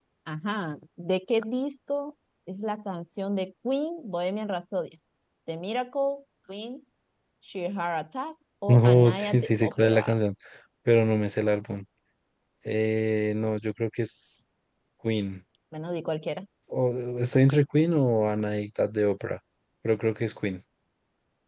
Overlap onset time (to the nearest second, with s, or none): 9 s